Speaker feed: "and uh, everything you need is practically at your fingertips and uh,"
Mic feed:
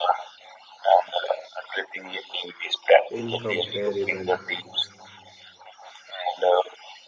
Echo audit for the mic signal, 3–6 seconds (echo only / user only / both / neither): both